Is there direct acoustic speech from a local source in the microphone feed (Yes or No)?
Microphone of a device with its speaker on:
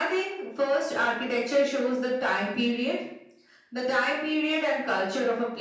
No